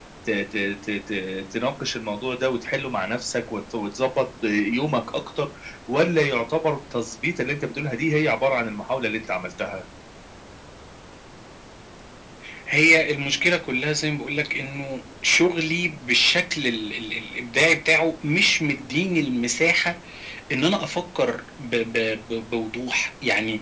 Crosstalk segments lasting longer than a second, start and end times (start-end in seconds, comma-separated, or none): none